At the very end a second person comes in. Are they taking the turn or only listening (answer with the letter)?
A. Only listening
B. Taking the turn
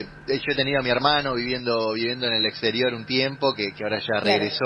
A